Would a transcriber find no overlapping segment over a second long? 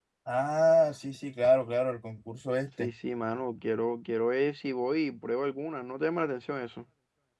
Yes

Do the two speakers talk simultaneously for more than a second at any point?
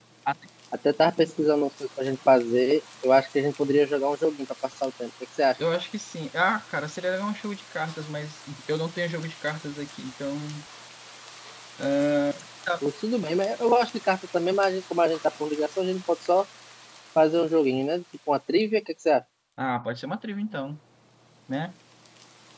No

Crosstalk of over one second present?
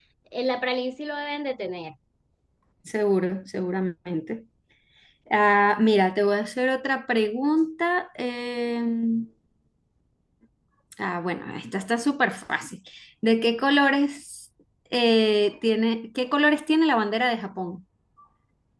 No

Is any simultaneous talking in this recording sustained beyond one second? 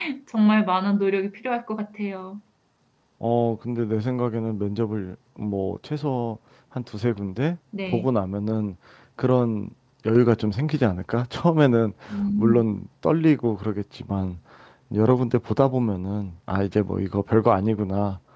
No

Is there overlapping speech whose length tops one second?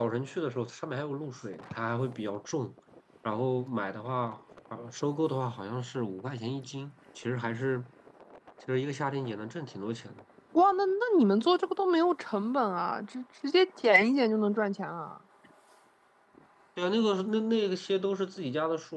No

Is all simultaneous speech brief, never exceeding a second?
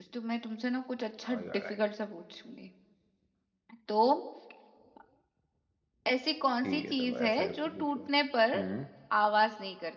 No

